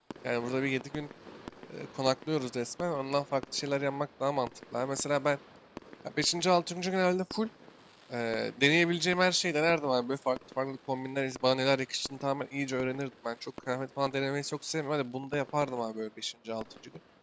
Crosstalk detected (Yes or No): No